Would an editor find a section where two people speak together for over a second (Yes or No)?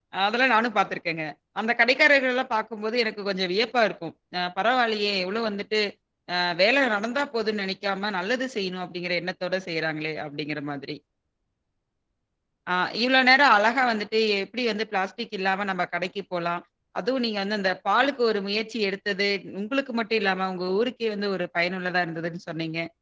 No